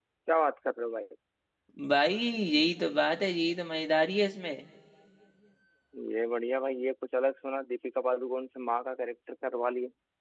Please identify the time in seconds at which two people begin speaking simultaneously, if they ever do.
none

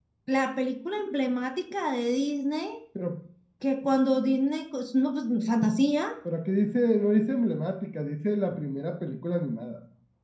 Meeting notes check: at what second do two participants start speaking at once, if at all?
none

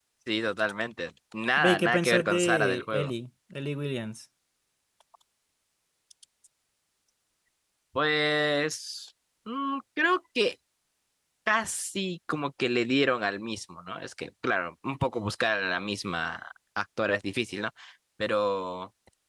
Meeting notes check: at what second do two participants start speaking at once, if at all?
2 s

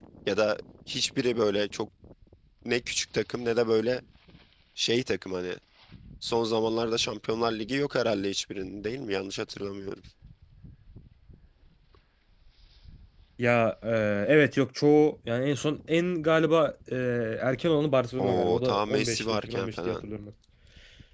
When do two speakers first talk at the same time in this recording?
18 s

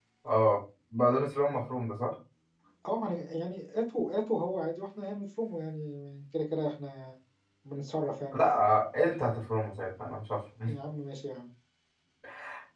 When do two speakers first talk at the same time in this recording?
none

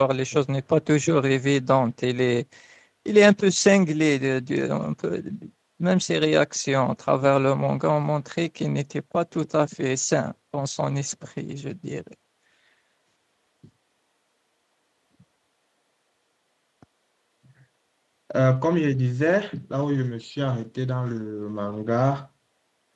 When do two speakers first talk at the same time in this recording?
none

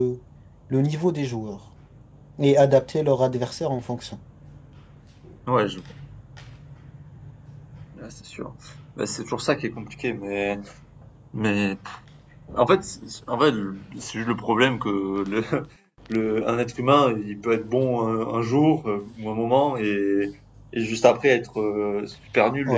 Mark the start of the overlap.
none

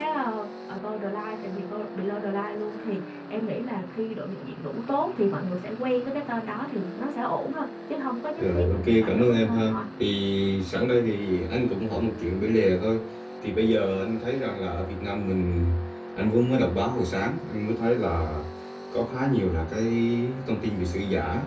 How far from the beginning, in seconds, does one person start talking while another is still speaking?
8 s

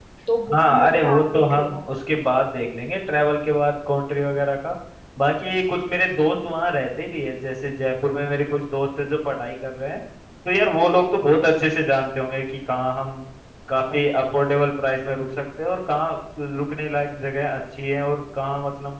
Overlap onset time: 1 s

